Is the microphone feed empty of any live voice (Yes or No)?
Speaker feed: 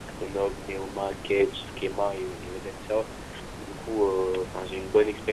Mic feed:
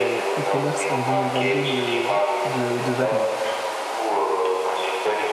No